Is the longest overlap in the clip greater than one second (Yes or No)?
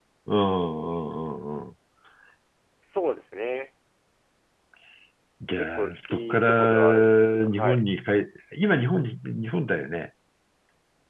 Yes